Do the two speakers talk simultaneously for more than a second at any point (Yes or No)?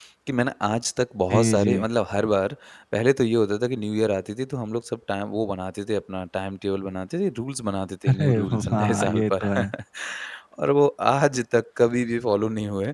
Yes